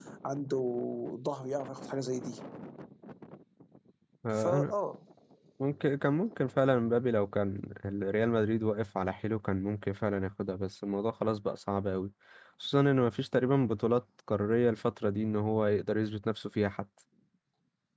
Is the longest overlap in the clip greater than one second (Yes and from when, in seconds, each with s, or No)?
No